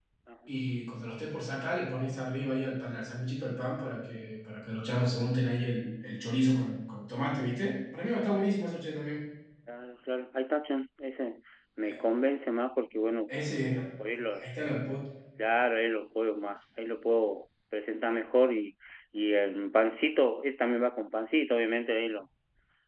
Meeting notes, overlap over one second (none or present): none